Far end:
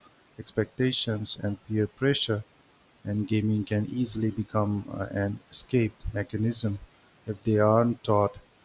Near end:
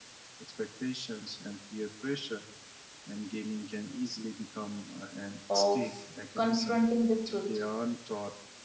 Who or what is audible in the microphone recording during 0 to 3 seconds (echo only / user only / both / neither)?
echo only